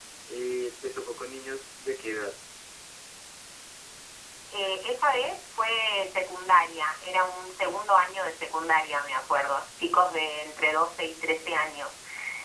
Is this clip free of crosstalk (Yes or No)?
Yes